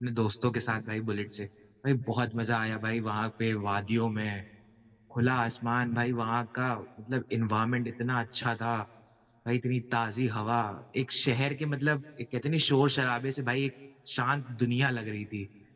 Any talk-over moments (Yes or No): No